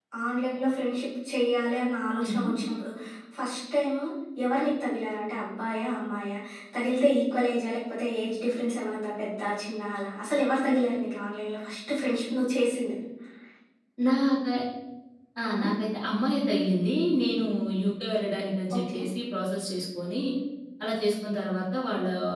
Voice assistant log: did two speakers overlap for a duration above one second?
No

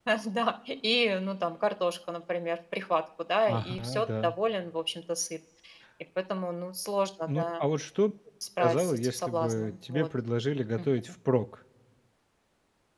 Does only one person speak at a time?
No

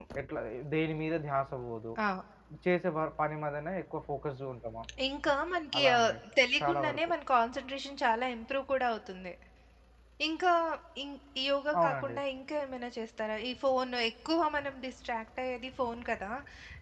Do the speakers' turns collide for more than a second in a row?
No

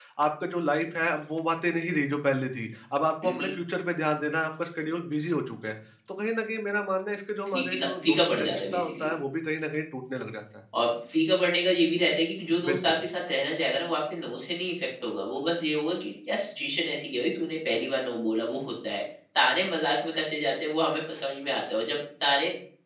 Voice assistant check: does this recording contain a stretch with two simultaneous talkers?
Yes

